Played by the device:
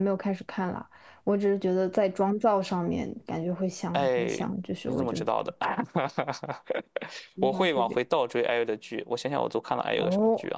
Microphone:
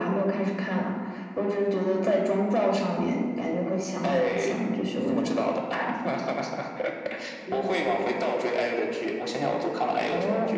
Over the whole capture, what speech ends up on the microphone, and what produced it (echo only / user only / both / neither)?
echo only